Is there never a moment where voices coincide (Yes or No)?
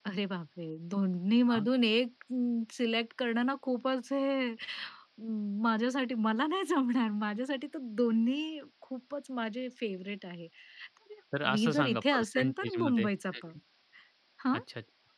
No